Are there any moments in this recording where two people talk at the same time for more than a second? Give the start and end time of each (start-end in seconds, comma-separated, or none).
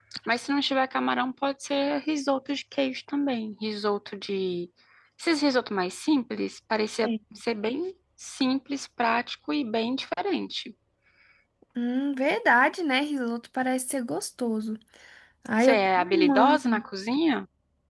15.6-16.8